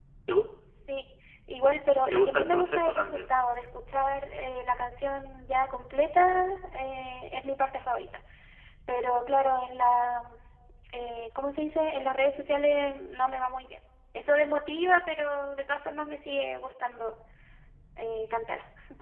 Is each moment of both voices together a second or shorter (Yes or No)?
No